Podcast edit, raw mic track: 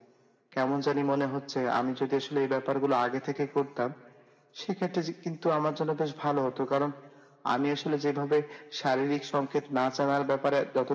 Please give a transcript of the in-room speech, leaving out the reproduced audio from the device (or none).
none